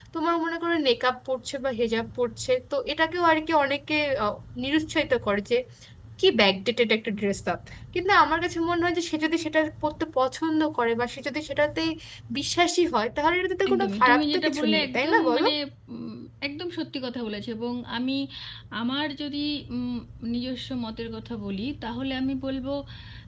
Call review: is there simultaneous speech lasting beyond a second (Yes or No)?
Yes